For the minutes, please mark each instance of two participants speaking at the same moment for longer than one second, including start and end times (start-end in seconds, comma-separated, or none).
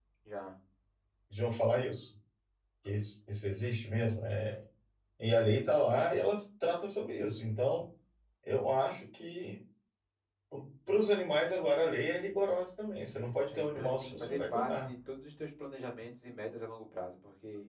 13.5-14.9